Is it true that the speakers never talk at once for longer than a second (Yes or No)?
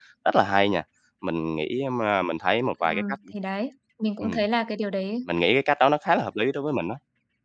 Yes